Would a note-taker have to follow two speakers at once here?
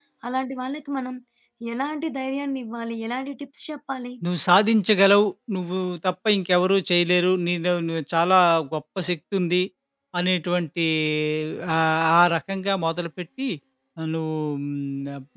No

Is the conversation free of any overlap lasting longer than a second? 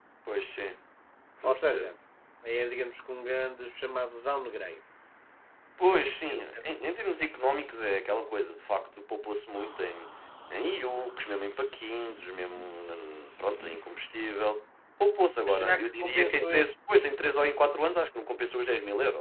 No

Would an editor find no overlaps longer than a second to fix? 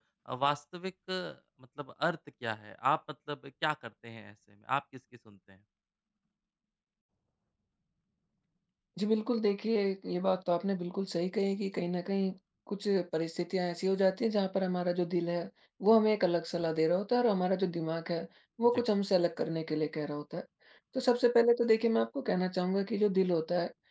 Yes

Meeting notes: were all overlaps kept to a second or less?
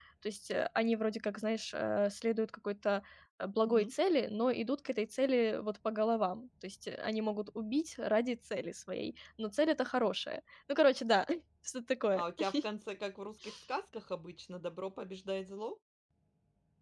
Yes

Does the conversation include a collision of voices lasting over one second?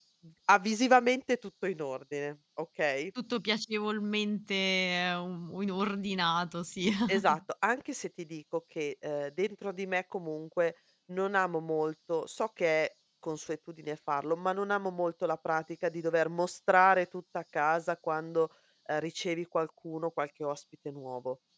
No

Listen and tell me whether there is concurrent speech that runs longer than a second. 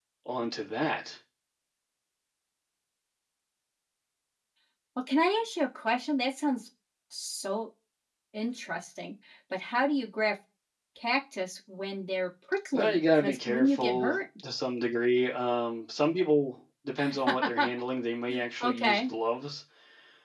Yes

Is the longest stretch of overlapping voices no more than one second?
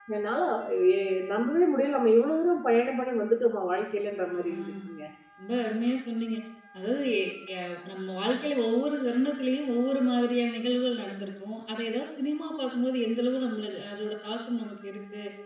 Yes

